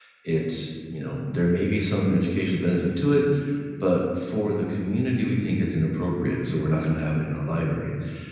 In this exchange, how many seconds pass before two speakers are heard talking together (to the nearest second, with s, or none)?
none